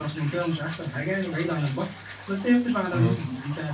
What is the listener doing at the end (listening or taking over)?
listening